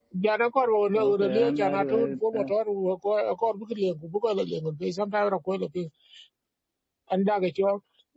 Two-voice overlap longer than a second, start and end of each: 0.9-2.5

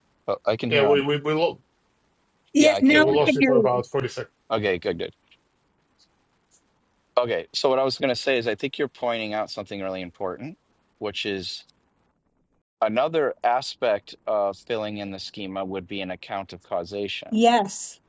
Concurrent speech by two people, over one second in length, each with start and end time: 2.6-3.8

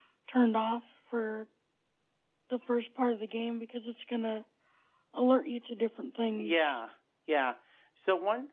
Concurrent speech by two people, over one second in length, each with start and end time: none

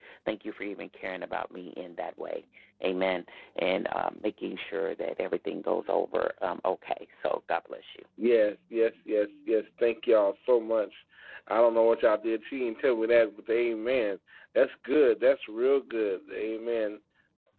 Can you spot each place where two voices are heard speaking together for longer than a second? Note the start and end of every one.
none

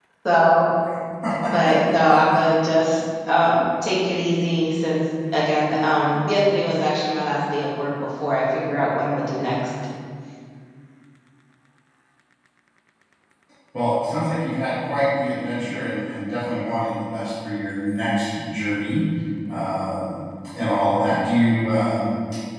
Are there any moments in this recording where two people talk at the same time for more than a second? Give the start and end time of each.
none

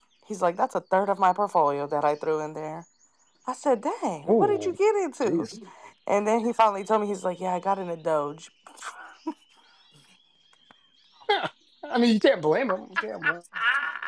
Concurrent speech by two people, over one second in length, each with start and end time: none

